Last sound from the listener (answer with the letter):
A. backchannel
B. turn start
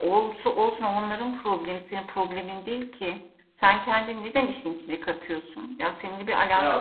A